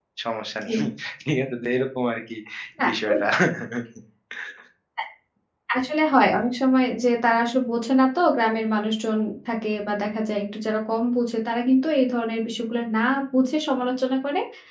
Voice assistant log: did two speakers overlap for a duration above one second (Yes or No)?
No